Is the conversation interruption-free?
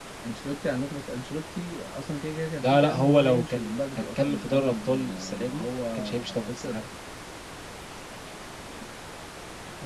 No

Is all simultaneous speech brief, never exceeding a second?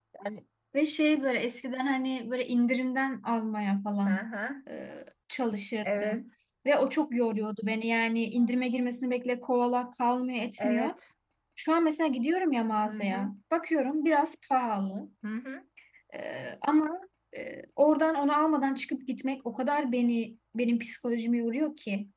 Yes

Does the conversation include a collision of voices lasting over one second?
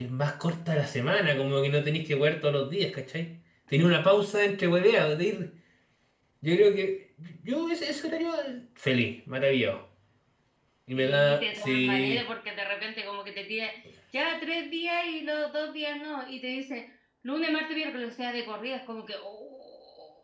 Yes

